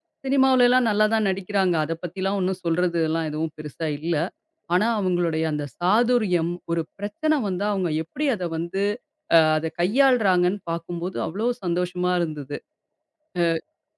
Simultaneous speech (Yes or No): No